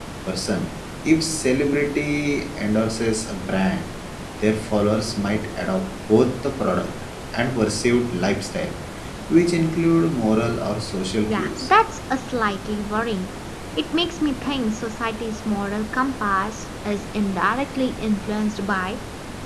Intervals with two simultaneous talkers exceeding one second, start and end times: none

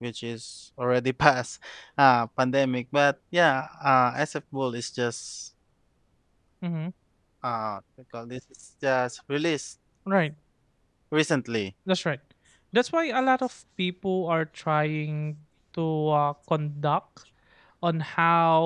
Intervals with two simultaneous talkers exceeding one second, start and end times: none

